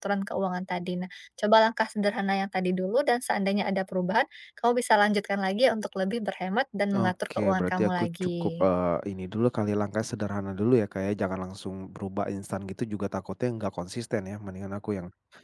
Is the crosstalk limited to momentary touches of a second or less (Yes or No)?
No